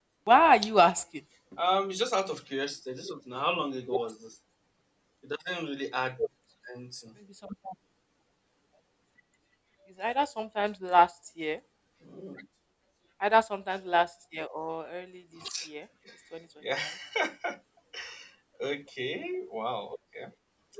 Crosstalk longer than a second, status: none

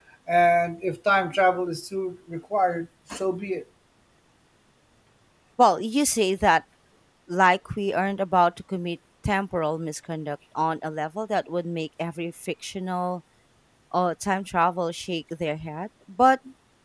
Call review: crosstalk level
none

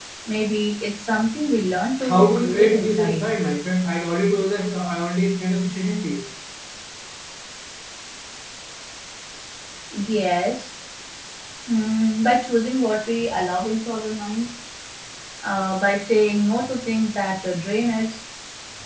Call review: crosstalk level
present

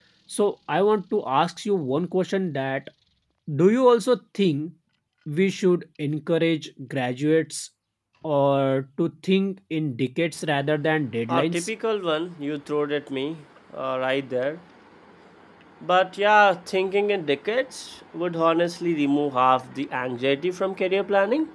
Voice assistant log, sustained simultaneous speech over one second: none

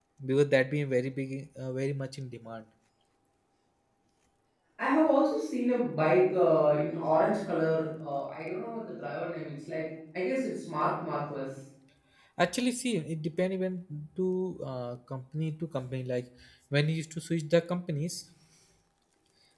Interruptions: none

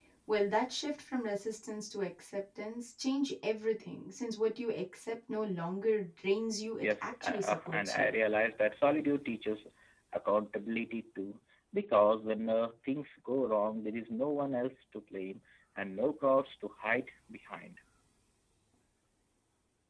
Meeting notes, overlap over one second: present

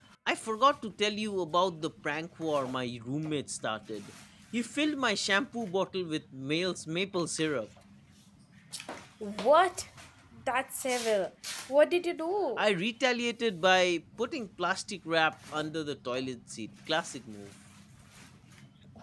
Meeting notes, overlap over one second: none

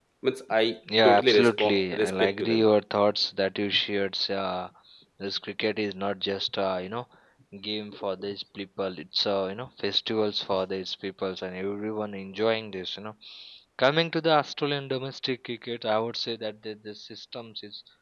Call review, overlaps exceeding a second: present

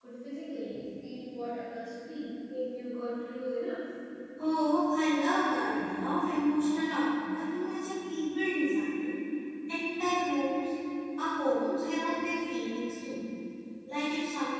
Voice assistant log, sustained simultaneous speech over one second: none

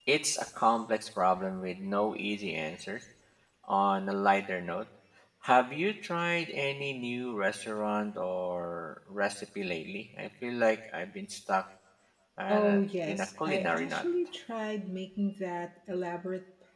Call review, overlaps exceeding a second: present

